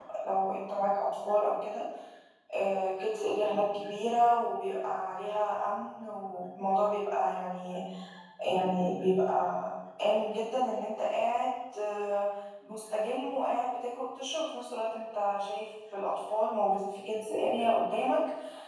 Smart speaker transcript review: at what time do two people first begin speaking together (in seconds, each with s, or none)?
none